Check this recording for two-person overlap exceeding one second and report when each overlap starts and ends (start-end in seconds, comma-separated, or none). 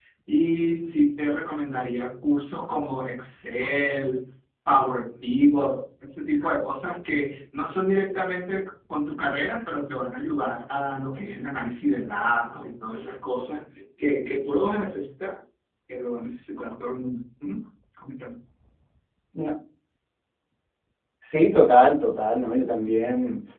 none